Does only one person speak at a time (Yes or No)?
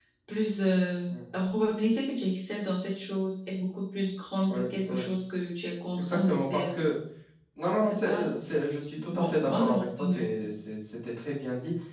No